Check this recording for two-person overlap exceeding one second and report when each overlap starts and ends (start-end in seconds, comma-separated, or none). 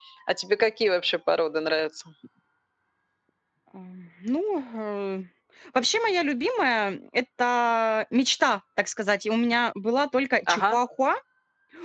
none